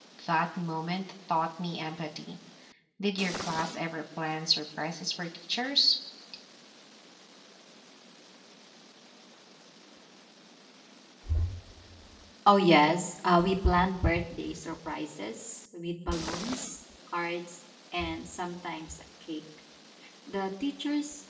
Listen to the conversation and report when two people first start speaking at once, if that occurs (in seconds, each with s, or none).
none